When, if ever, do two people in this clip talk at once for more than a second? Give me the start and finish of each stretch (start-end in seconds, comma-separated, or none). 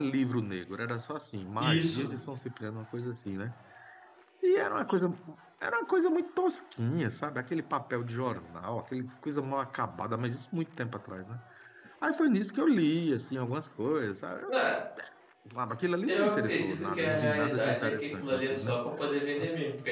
16.1-18.7